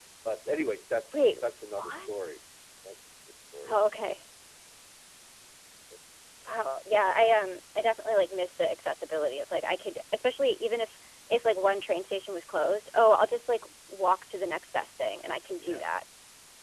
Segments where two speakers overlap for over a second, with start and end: none

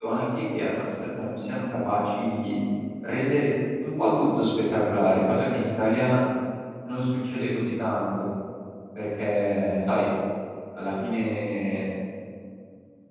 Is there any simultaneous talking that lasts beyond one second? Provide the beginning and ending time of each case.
none

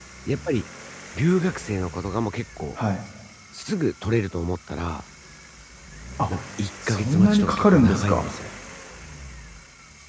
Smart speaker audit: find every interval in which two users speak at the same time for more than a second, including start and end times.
6.9-8.3

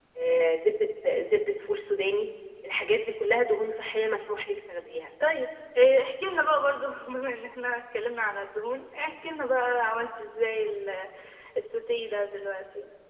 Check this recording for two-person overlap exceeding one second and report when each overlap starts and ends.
none

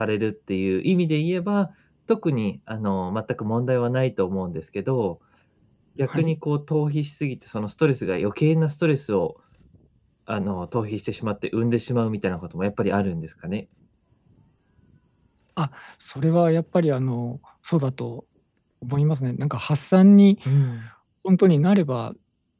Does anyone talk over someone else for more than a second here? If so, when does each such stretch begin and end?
none

